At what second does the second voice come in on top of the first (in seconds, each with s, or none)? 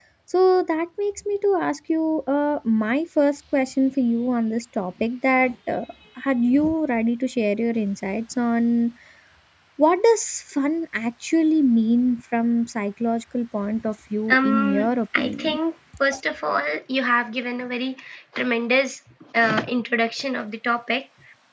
14.3 s